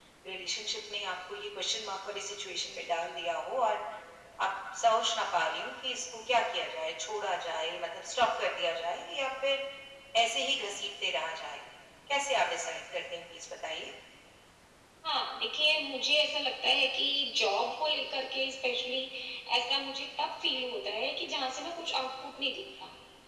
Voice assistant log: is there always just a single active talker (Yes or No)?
Yes